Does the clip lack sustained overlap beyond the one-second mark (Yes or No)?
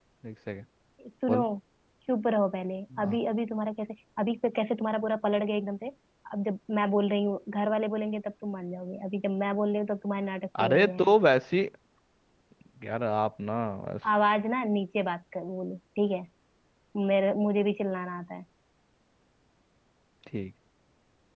Yes